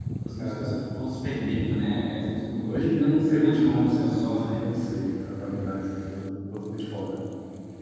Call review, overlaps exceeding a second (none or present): present